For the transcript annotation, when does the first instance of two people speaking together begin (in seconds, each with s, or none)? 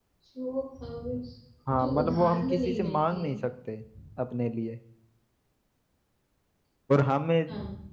1.7 s